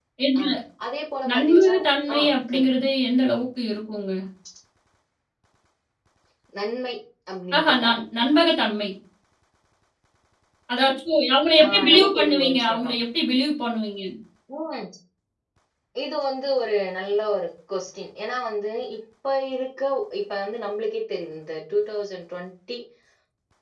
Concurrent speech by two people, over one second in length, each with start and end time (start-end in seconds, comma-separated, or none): 11.6-12.9